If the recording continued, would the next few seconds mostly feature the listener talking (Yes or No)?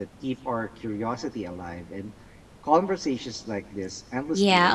Yes